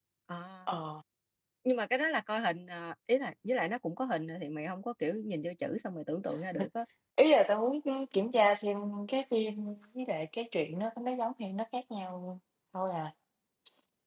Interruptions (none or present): none